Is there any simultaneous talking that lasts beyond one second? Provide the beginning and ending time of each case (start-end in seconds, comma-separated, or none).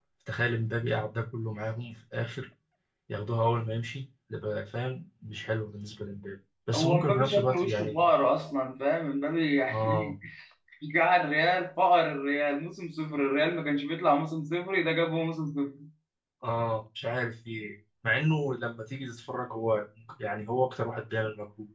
6.8-8.1